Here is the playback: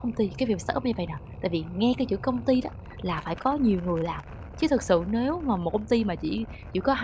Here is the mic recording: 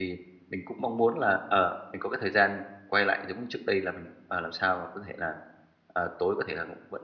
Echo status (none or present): none